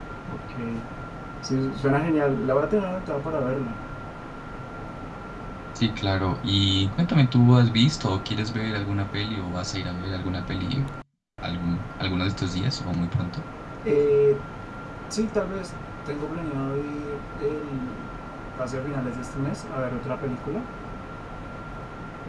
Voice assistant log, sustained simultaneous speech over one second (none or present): none